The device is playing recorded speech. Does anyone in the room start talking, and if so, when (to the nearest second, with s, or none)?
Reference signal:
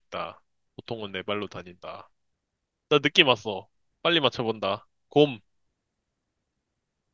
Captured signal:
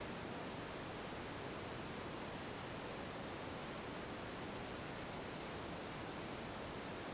none